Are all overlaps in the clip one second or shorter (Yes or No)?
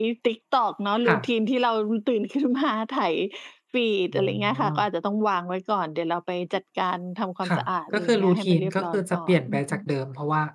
No